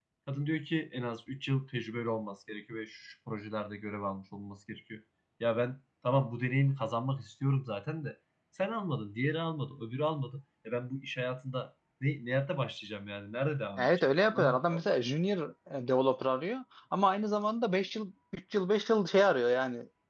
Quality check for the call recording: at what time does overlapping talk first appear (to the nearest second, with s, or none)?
14 s